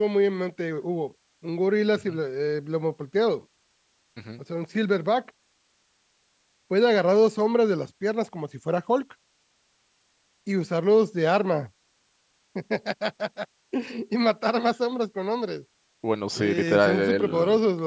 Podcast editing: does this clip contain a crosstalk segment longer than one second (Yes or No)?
Yes